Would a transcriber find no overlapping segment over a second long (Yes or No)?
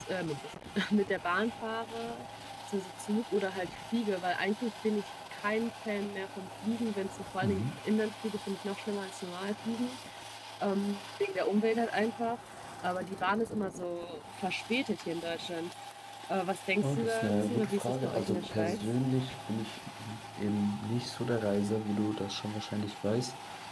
No